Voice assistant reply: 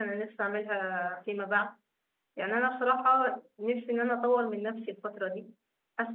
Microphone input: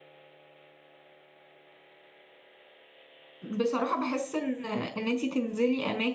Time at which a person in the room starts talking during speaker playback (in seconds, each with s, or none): 3.4 s